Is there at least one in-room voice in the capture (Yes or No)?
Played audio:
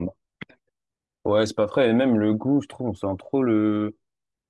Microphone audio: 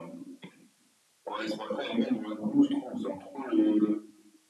No